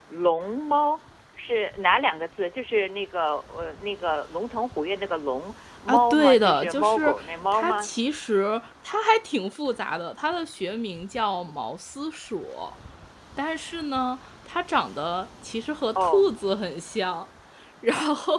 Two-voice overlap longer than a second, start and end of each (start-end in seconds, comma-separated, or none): 5.9-7.9